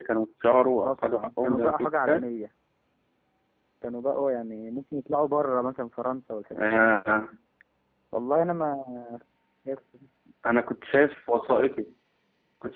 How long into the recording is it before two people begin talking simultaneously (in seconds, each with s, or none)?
0.8 s